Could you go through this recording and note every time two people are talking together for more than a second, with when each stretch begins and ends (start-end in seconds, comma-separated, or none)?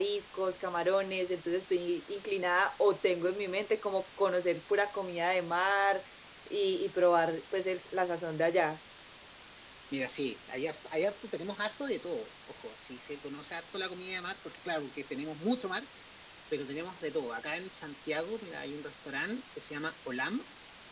none